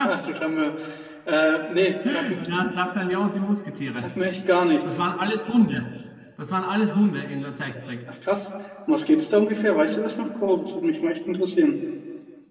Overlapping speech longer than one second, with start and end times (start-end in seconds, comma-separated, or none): none